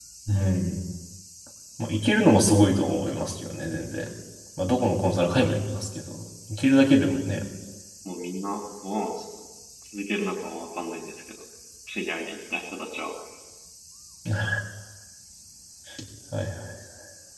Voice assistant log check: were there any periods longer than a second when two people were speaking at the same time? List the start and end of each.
none

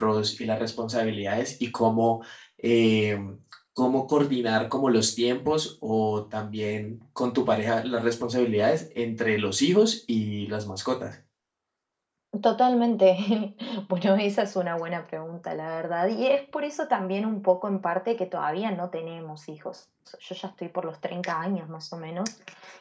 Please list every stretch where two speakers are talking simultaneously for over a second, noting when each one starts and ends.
none

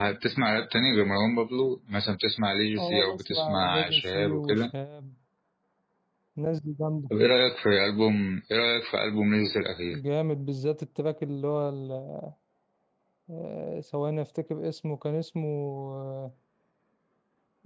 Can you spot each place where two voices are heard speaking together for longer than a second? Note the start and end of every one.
2.8-4.7

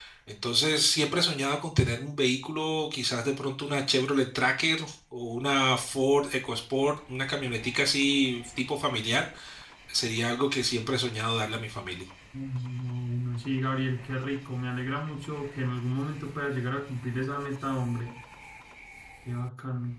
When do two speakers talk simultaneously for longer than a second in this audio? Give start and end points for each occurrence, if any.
none

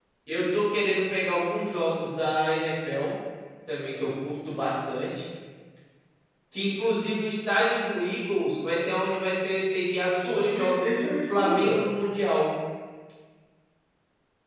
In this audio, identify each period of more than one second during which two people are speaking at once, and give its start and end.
10.2-11.8

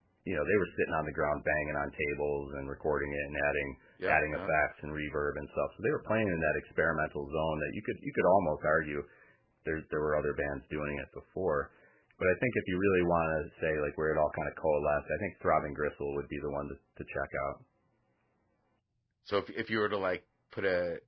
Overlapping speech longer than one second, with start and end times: none

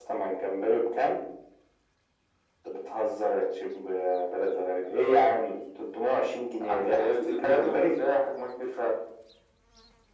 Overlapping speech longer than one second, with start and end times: 6.7-8.0

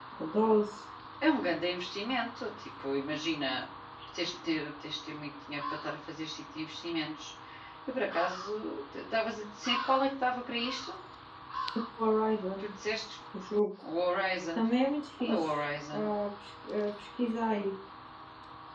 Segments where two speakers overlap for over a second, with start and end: none

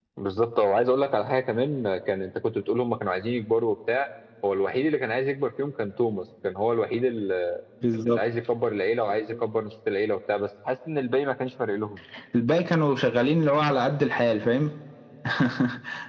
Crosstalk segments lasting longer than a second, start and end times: none

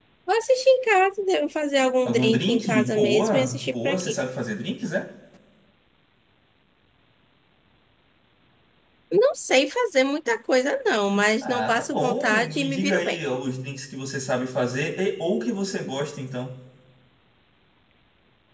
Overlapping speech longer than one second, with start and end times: 2.0-4.2, 11.4-13.2

